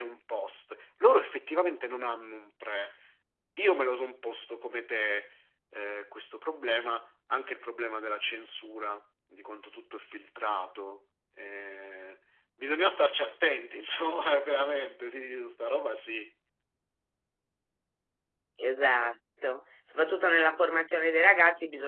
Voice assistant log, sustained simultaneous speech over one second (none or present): none